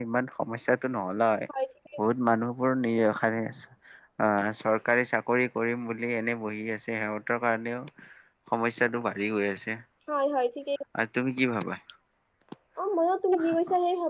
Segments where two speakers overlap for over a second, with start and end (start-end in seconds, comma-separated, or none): none